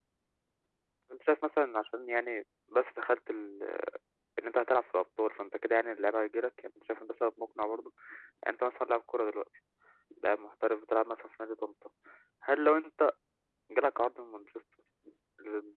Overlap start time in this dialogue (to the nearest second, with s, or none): none